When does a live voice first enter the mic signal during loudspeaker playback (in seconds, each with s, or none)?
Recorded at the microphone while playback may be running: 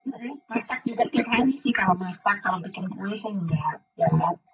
none